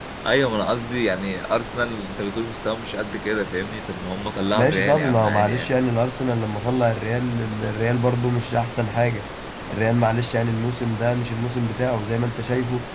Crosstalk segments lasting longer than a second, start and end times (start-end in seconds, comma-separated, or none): 4.5-5.8